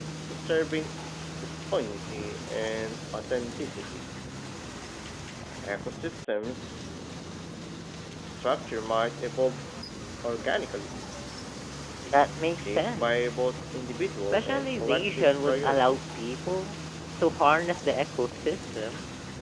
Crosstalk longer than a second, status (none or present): present